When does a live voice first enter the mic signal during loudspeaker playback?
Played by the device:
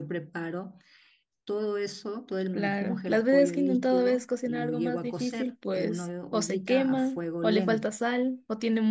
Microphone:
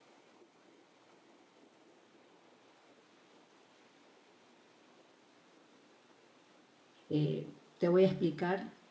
7.1 s

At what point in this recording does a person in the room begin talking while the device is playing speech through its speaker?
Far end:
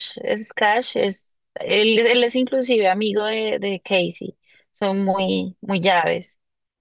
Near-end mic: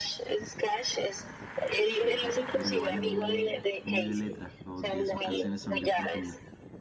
1.9 s

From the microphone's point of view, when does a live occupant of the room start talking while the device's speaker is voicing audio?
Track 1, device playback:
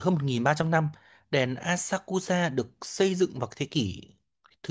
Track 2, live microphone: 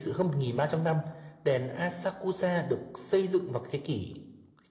none

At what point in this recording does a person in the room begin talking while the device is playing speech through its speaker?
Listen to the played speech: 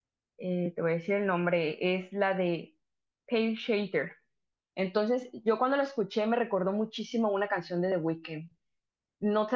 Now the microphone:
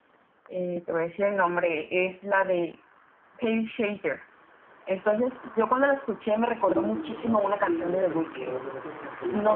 6.6 s

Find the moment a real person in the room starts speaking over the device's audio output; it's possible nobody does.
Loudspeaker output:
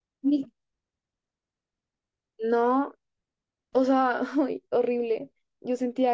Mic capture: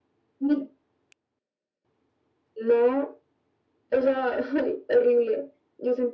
none

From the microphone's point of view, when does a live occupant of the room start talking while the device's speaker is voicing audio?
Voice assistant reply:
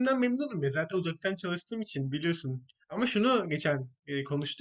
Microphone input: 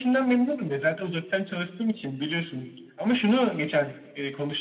none

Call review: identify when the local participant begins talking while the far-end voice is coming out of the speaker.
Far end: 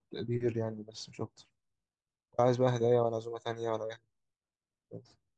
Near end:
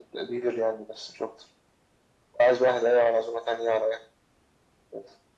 none

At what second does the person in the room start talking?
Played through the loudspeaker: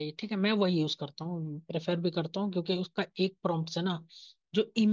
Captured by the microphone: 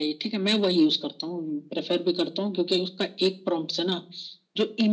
none

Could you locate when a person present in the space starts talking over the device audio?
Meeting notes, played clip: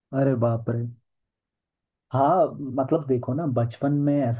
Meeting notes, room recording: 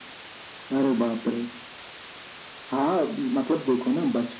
none

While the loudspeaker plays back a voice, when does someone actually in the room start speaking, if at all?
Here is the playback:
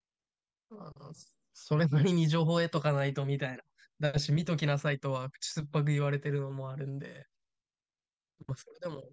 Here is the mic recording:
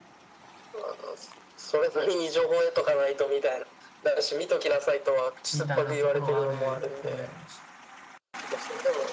5.5 s

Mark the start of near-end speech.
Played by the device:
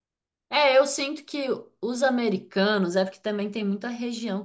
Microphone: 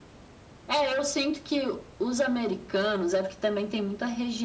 none

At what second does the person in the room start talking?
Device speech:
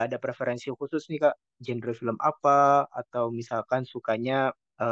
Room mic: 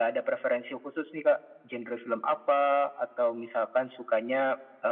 none

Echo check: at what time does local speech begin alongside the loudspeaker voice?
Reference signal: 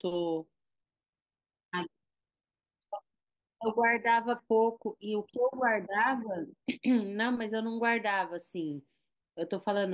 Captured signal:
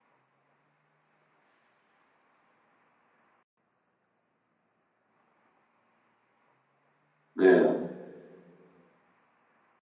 7.4 s

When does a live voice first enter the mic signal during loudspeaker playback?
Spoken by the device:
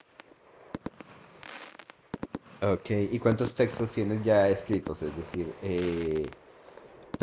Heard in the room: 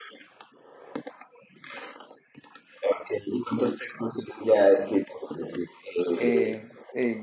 6.2 s

